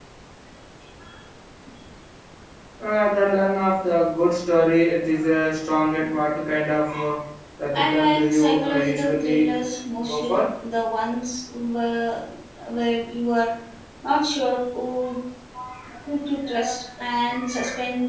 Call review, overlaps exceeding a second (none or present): present